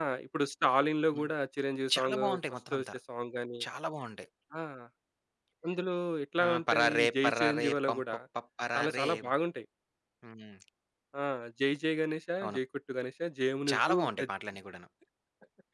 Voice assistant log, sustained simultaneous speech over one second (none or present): present